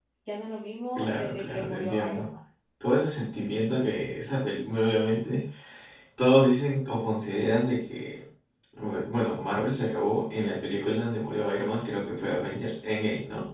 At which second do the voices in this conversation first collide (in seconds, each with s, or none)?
0.9 s